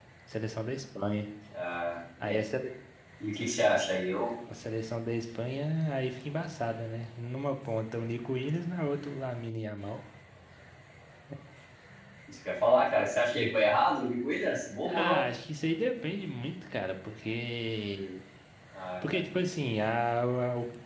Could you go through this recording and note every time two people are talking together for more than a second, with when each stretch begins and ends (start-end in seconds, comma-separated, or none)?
none